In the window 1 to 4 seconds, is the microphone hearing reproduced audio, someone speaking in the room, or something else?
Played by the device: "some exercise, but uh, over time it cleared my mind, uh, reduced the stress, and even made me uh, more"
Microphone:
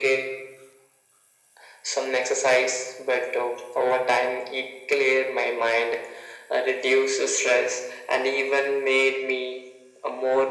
echo only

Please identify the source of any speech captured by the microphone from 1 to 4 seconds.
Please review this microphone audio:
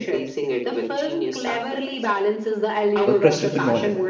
both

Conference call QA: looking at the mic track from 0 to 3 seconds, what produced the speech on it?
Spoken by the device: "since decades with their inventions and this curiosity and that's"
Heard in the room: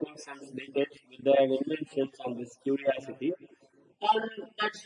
echo only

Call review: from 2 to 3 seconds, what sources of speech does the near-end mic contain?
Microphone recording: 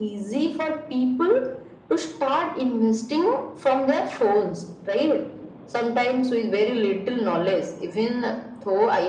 echo only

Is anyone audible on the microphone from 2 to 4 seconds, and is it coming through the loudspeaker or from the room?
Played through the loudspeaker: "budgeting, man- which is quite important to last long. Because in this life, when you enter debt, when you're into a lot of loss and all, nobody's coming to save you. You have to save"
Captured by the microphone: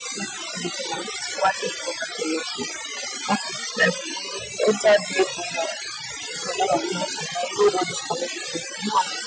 echo only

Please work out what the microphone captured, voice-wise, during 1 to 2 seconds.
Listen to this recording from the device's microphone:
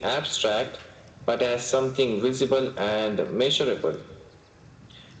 echo only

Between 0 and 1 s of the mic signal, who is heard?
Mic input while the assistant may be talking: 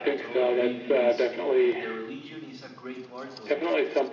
both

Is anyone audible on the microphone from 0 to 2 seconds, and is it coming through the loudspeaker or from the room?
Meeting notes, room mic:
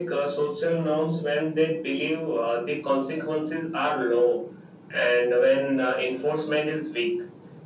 echo only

